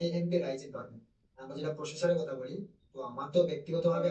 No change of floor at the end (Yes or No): Yes